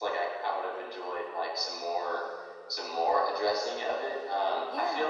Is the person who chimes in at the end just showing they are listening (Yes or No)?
Yes